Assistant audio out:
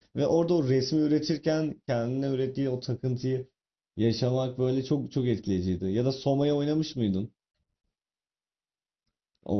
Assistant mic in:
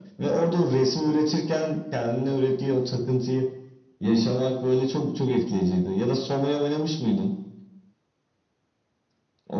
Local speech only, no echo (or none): none